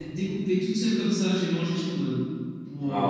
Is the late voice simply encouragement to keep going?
No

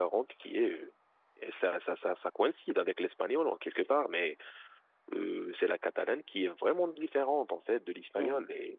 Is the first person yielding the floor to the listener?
No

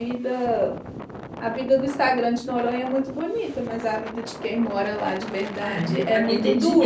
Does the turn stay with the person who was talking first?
No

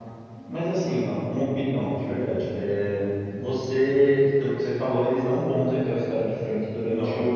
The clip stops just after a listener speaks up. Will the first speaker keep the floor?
Yes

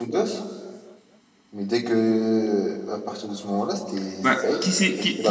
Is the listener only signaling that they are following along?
No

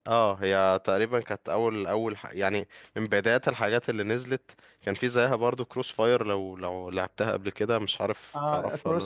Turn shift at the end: Yes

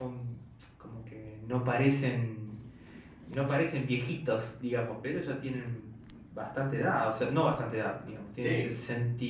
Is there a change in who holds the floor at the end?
No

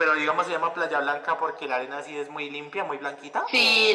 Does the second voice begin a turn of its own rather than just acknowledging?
Yes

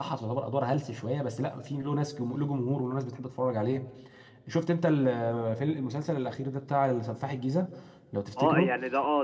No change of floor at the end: No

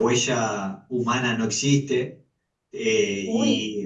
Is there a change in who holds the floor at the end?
No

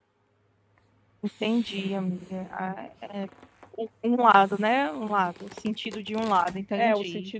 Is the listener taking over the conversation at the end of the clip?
Yes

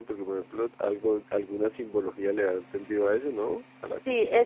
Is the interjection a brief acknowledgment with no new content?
No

